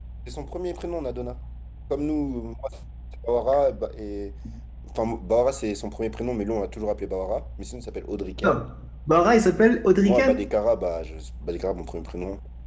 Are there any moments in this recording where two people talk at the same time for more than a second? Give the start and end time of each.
none

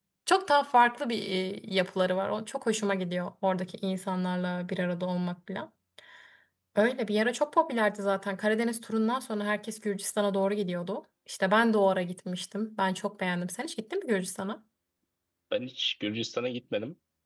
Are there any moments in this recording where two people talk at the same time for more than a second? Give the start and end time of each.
none

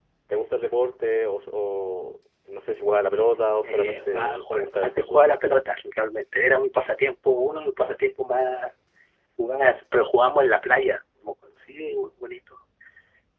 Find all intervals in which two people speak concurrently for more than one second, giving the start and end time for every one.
3.6-5.2

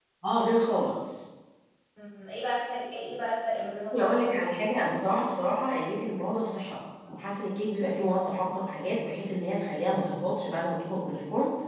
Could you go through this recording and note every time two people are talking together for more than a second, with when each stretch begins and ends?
none

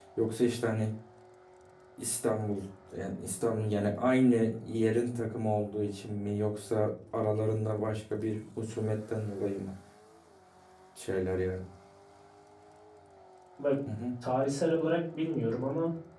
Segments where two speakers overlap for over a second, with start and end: none

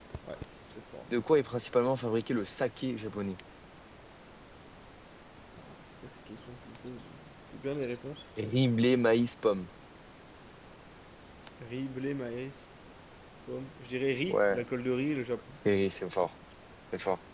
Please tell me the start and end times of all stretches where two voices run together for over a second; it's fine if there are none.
none

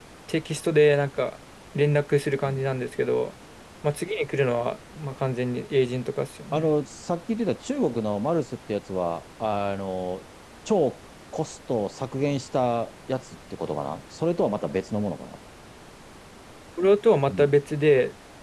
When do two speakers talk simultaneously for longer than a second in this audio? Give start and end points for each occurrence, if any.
none

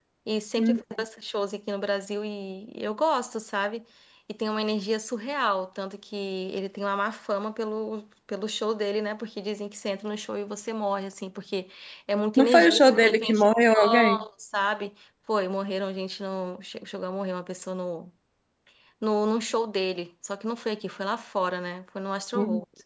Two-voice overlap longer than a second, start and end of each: 12.4-14.2

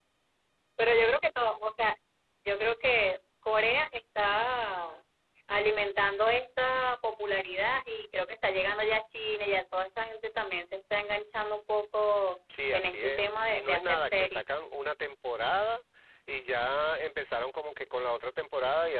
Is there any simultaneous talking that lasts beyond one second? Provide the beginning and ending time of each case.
12.7-14.4

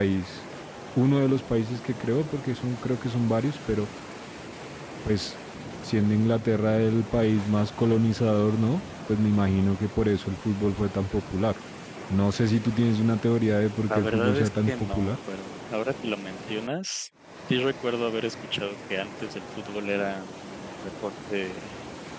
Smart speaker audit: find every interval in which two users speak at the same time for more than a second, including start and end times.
13.8-15.1

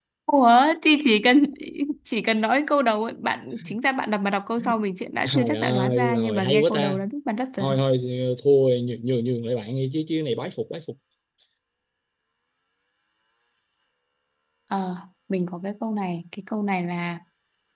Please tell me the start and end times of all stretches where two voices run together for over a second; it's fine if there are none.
5.2-7.0

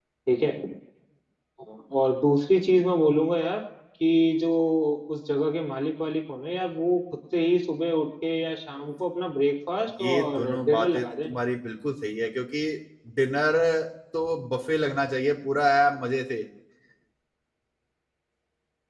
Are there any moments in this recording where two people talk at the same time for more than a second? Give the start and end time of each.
10.0-11.3

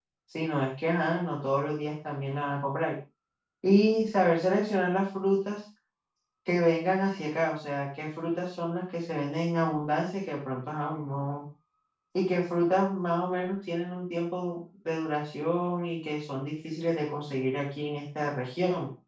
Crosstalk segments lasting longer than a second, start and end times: none

